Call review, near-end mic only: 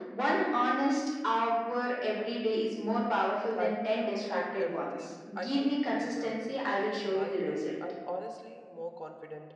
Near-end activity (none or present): present